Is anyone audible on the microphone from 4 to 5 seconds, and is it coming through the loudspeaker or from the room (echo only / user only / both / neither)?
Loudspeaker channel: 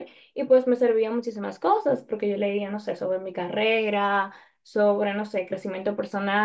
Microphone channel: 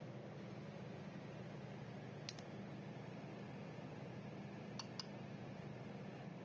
neither